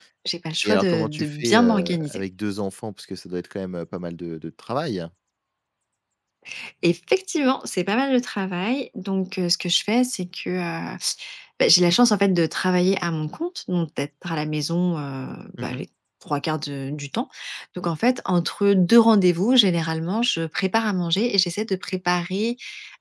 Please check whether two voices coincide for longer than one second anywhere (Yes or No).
Yes